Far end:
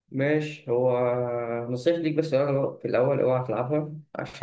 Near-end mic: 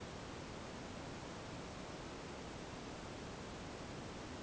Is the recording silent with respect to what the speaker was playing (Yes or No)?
Yes